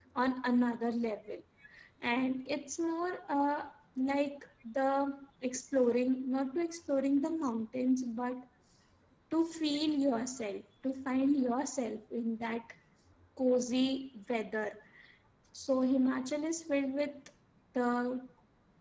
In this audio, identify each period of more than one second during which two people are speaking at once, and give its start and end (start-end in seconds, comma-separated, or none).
none